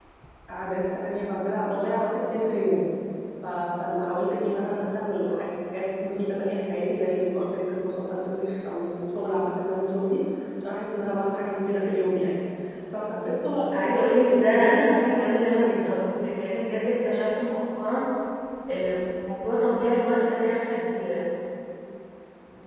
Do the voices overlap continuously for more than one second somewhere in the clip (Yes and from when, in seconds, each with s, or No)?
Yes, from 13.7 s